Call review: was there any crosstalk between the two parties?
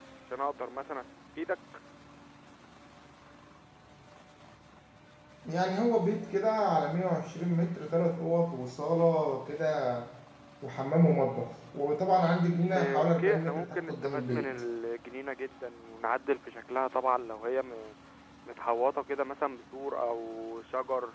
Yes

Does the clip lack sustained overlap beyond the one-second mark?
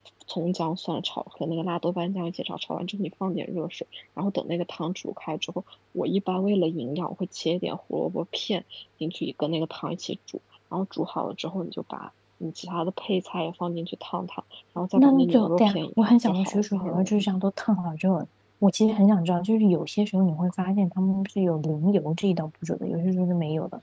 No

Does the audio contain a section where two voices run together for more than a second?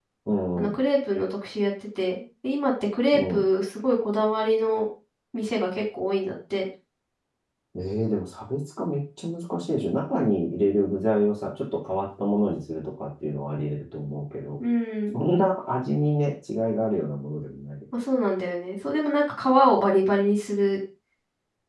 No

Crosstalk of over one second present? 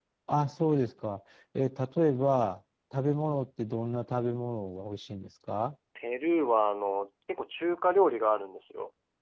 No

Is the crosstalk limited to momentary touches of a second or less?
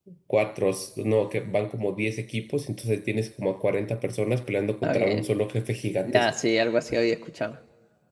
Yes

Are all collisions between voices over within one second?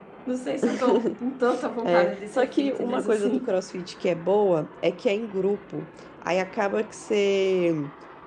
No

